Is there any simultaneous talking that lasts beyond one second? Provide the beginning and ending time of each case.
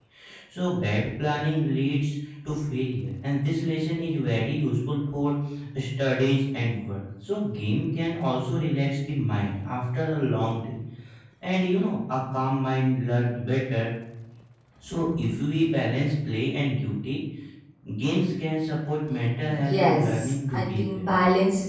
19.5-21.0

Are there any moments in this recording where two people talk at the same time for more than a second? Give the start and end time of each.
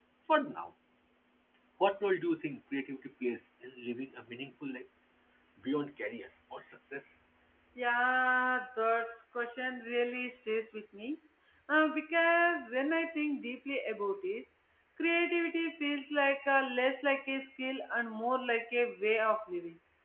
none

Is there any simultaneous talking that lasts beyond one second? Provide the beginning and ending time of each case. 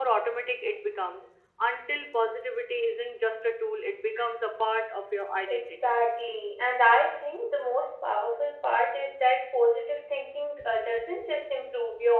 none

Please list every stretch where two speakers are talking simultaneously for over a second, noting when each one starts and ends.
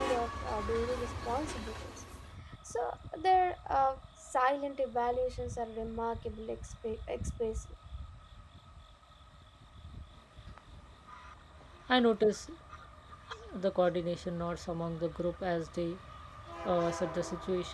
none

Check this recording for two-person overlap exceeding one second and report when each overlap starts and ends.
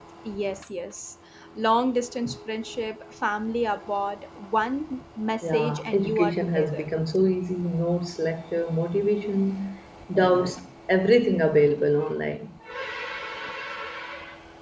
5.4-6.8

